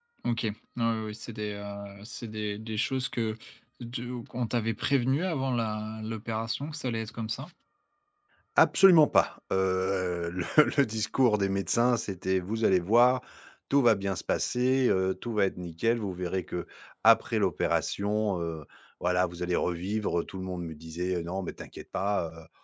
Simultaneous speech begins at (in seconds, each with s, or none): none